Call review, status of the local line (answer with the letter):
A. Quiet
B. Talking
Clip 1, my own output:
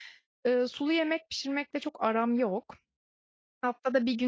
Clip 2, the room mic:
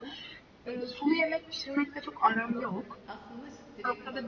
B